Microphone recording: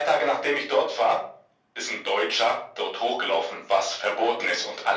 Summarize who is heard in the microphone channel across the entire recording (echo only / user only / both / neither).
echo only